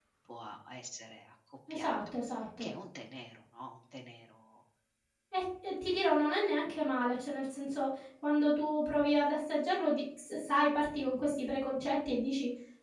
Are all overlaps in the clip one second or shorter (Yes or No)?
Yes